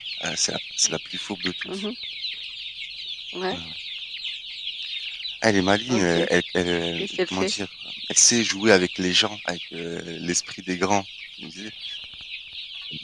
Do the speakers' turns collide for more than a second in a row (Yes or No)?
No